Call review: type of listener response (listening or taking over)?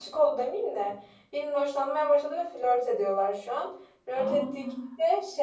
listening